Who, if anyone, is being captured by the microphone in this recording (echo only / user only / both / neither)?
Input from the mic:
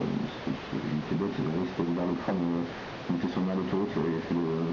echo only